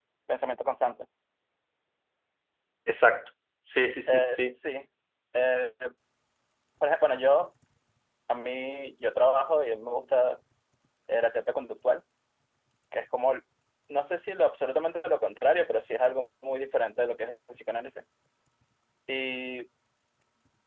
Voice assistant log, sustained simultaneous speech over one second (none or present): none